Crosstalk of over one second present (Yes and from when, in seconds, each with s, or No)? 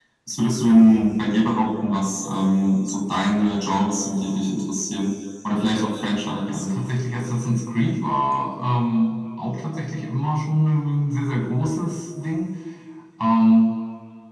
No